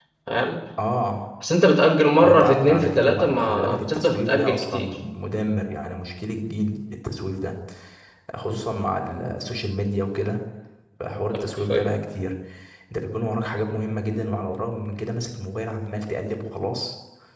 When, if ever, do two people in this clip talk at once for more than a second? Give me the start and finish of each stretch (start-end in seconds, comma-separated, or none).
2.2-4.9